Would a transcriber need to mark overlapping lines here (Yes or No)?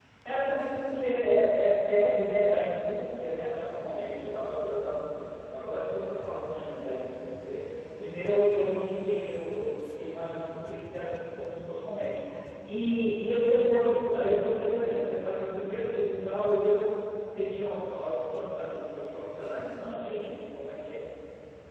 No